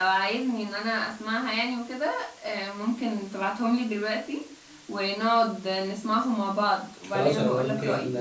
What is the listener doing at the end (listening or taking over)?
taking over